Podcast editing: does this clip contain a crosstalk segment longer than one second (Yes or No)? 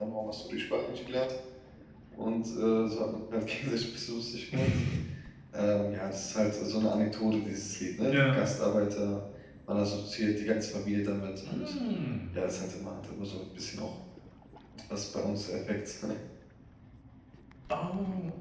No